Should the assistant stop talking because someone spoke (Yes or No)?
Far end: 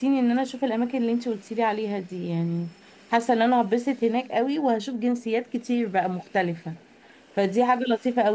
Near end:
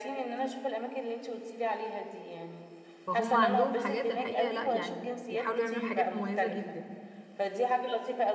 Yes